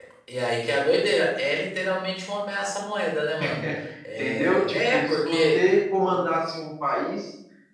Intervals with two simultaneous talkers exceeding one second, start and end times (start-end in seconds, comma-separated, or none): 4.2-5.6